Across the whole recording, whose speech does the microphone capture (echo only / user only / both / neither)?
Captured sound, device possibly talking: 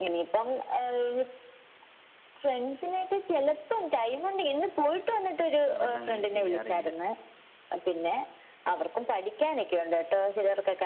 both